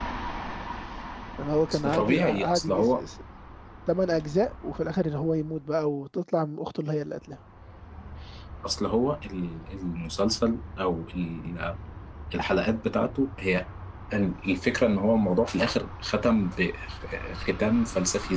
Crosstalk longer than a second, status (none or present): present